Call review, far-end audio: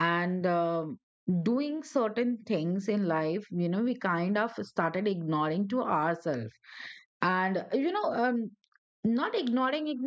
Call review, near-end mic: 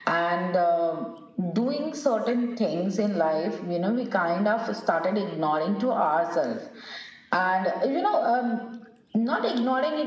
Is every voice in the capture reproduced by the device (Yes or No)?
Yes